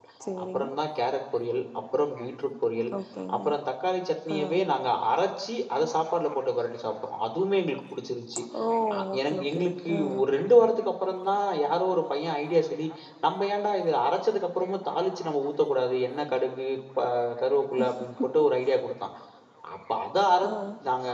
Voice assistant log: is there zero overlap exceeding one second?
No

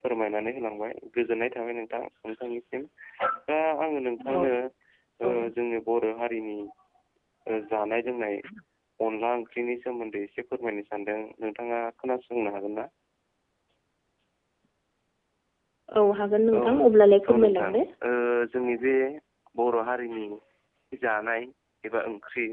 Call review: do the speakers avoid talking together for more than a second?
Yes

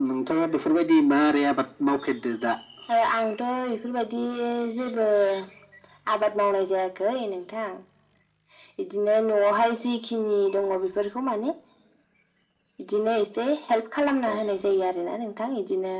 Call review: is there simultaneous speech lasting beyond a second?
No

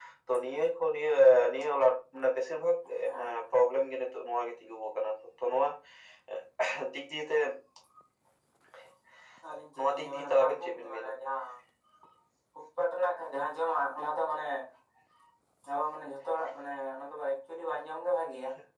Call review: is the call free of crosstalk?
No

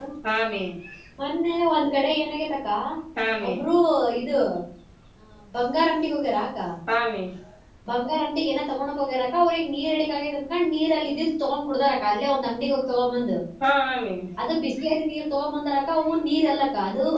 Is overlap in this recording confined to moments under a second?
Yes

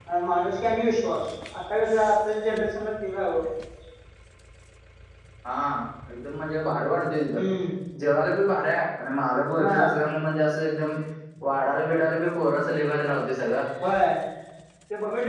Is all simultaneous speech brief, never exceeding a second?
Yes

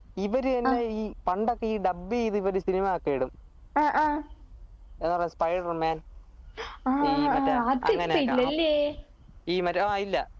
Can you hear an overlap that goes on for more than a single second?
Yes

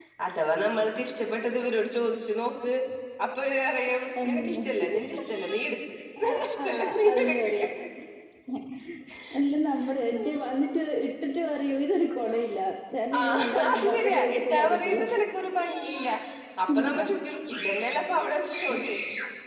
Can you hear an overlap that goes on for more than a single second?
Yes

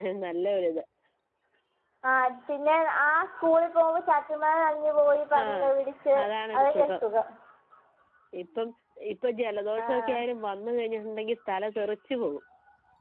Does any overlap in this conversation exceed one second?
No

